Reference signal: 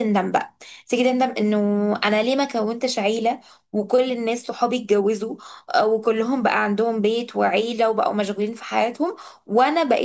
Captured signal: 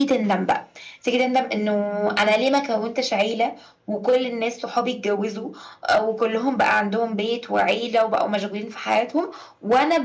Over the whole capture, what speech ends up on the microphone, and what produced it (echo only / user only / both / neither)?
echo only